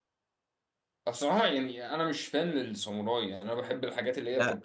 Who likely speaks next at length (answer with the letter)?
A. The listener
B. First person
A